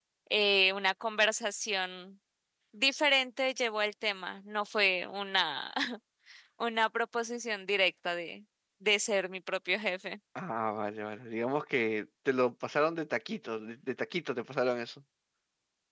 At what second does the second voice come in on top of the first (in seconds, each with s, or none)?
none